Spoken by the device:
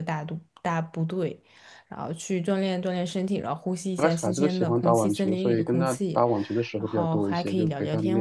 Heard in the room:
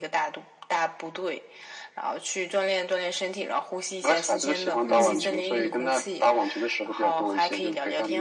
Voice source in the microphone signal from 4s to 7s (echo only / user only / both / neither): both